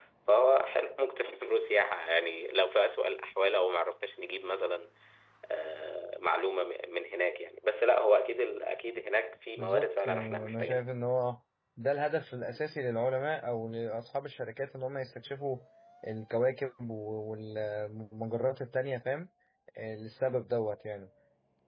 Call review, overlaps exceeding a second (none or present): present